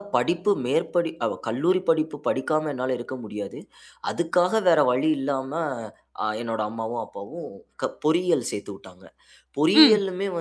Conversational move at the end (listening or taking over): listening